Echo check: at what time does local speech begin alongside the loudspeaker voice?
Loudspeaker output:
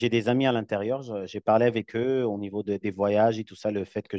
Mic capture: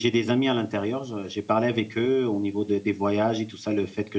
none

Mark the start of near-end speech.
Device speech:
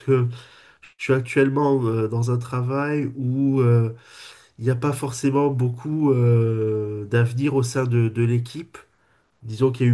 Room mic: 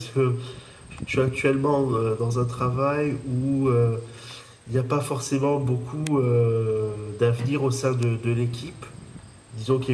none

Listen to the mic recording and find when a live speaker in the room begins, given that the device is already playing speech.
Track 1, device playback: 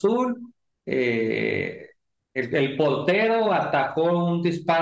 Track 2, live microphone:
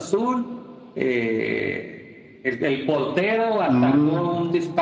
3.7 s

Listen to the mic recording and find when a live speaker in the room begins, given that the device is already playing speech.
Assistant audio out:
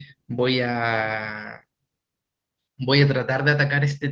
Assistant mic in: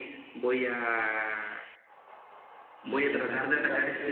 2.8 s

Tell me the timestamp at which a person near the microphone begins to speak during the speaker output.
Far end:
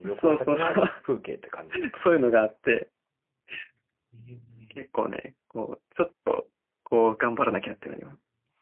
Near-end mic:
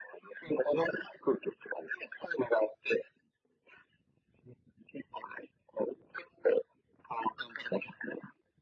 none

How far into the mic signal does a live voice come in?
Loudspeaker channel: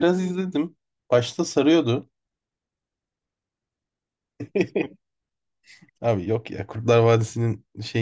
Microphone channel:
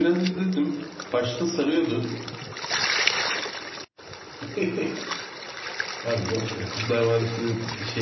none

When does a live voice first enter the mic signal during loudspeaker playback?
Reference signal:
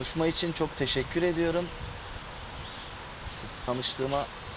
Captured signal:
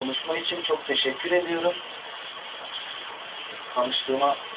none

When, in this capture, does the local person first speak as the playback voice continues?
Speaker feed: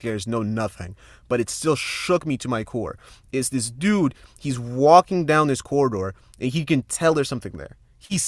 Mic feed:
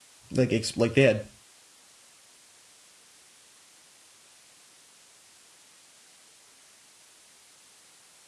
0.3 s

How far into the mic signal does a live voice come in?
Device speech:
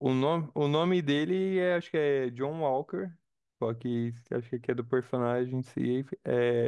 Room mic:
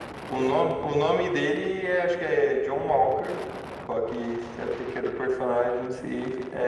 none

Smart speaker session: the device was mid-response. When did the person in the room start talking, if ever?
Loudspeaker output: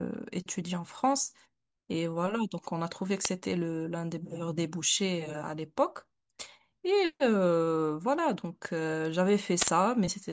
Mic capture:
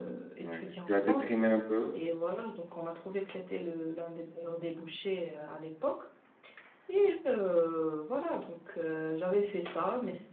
0.4 s

